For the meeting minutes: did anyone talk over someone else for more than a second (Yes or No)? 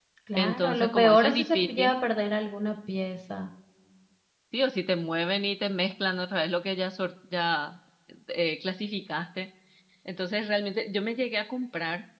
Yes